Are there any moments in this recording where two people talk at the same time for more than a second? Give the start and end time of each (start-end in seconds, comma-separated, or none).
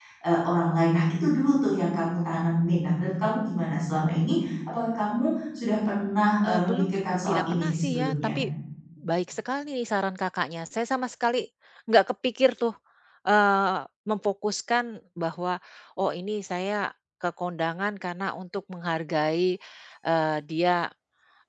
6.5-8.1